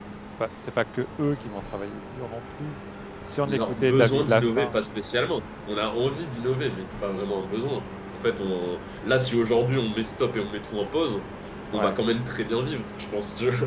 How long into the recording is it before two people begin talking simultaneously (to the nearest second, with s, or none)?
3 s